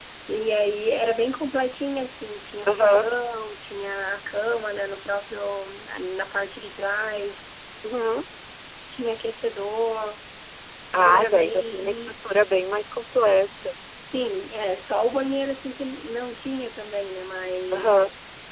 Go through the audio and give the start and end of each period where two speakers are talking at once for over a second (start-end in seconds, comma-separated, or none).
10.9-12.1